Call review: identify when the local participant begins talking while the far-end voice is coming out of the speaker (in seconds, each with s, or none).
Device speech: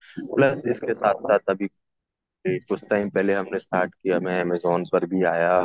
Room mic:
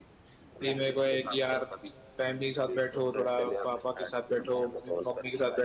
0.6 s